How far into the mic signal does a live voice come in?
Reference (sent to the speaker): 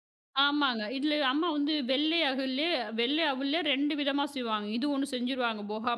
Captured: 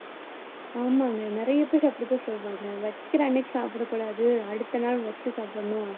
0.8 s

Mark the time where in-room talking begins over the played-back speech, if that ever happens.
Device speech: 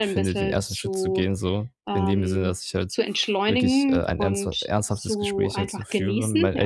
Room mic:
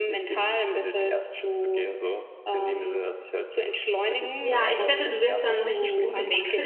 4.4 s

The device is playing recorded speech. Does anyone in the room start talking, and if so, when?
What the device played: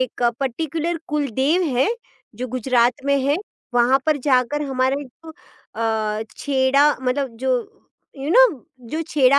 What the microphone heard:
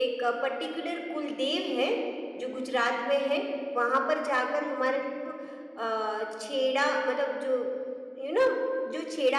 none

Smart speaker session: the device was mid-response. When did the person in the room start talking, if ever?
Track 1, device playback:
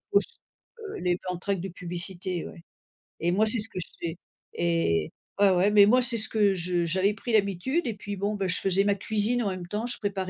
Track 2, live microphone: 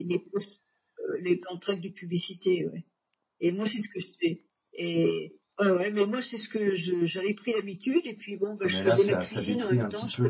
8.6 s

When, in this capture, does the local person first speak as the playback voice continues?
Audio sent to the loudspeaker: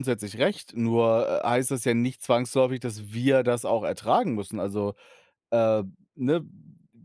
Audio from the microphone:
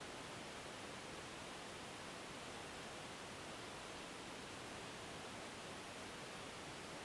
none

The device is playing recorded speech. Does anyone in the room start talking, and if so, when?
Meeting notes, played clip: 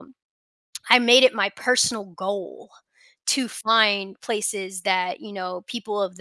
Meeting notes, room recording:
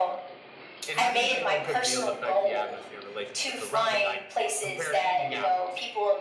0.9 s

